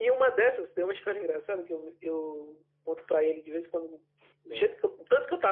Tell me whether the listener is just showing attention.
Yes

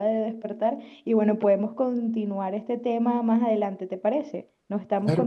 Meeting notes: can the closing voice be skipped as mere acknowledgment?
No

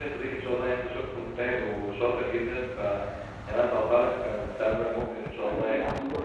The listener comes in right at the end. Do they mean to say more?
Yes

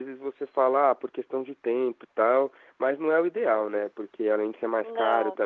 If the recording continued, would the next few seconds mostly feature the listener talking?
No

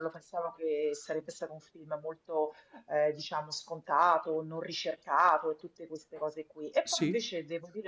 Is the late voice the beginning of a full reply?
No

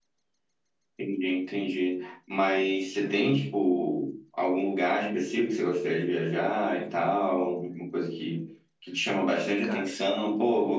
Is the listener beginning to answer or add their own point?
No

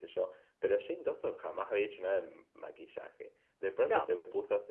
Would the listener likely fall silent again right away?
Yes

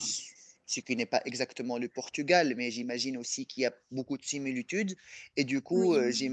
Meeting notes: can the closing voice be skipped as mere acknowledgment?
Yes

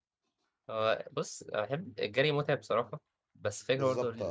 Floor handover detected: No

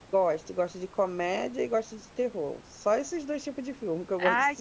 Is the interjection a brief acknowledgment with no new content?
No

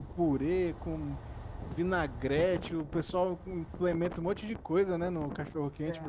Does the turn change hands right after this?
Yes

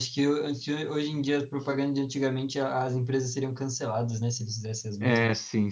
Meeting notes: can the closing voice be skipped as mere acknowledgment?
No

